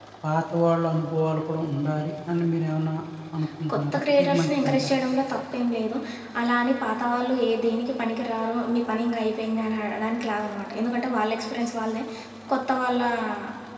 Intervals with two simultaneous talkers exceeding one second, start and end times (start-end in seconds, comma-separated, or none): 3.7-4.9